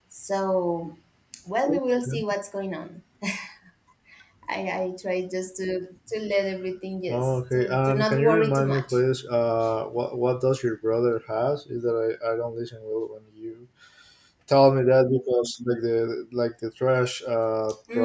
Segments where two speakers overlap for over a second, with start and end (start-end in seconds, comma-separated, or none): 7.1-9.0